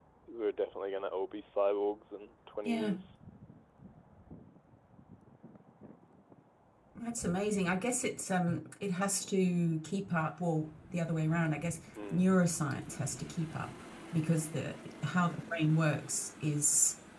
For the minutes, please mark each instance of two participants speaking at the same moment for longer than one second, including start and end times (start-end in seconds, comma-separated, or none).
none